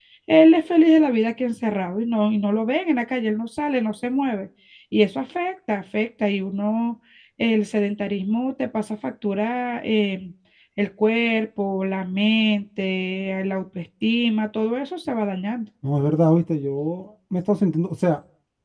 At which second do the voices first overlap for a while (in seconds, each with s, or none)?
none